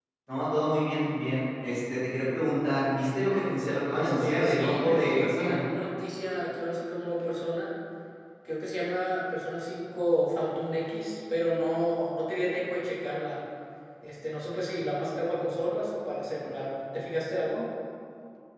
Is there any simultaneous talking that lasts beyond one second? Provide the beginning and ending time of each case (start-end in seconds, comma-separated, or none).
4.0-5.6